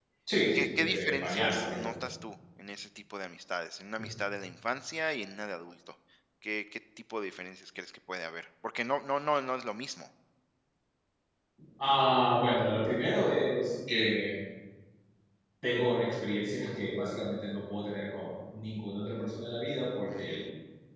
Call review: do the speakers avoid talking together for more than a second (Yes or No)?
No